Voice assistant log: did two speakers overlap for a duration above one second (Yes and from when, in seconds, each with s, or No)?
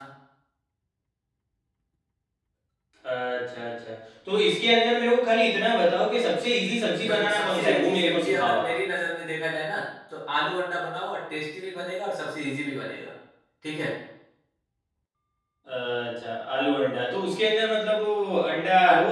Yes, from 7.0 s